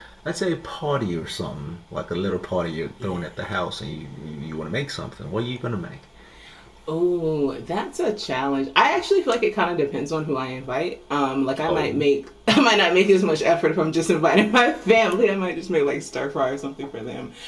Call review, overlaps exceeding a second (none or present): none